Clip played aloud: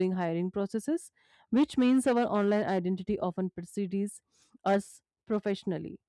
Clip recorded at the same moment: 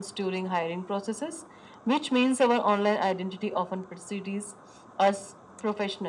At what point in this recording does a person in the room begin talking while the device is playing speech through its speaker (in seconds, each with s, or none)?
none